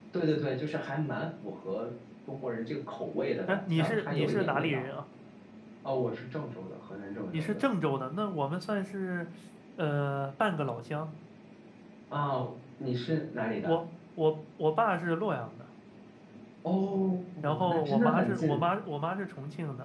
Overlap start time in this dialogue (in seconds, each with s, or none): 3.5 s